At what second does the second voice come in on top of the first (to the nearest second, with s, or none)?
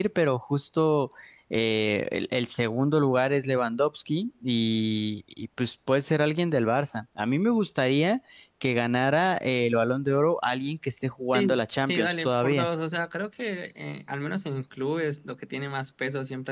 11 s